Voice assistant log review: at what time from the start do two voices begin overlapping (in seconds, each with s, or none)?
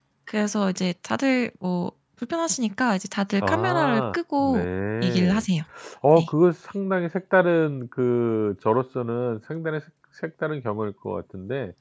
3.4 s